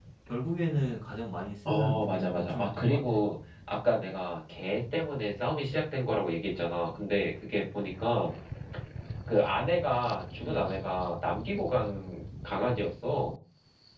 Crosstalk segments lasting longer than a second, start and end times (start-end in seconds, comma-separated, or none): 1.6-3.0